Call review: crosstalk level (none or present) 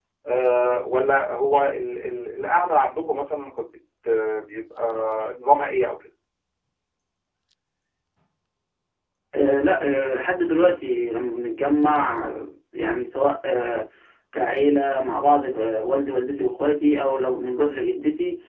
none